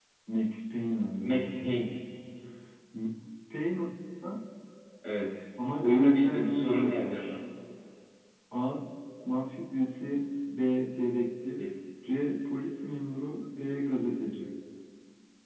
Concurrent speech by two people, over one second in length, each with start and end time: 5.8-7.3

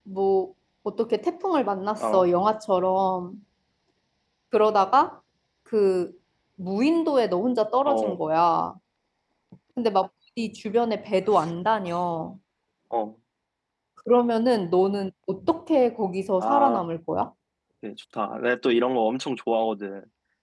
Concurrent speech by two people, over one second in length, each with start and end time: none

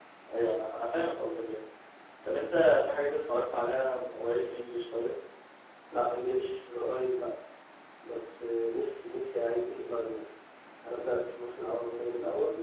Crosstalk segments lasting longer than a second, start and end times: none

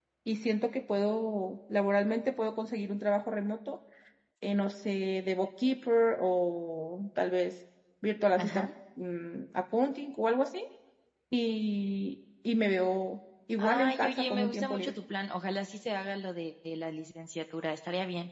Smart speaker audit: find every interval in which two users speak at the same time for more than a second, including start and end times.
13.6-14.9

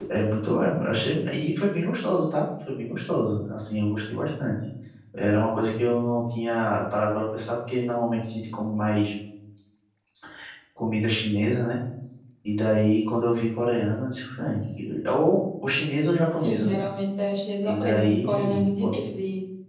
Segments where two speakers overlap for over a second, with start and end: 17.6-19.1

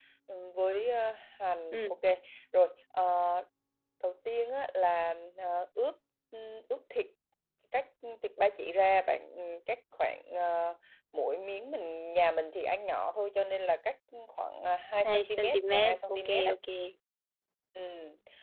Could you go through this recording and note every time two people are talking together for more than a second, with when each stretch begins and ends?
15.0-16.5

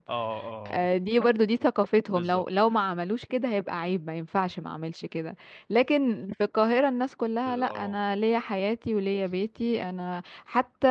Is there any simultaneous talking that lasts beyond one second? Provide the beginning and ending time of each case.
none

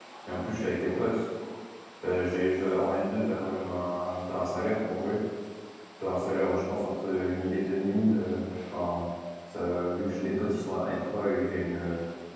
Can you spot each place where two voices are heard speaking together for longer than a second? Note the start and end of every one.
none

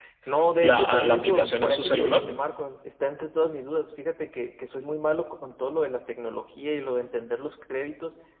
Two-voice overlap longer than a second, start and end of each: 0.6-2.2

